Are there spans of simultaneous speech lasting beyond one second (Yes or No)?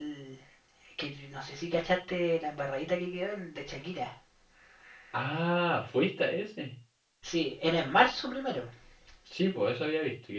No